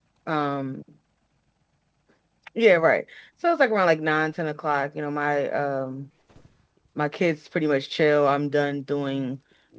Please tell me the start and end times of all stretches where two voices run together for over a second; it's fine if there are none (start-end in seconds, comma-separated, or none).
none